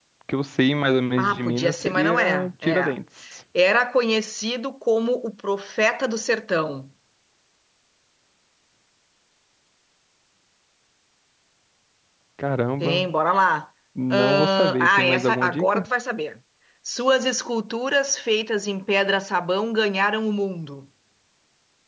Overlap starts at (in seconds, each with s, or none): 1.2 s